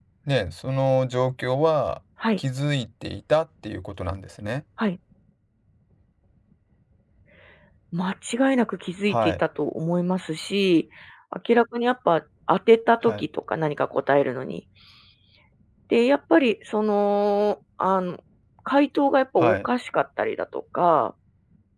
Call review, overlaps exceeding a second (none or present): none